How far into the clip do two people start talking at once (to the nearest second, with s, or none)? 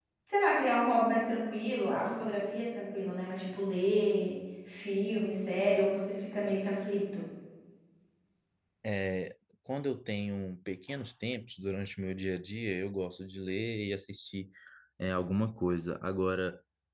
none